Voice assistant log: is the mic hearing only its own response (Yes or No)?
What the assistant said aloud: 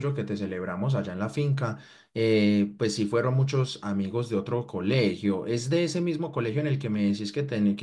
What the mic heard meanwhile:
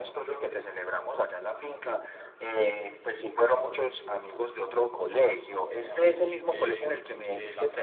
No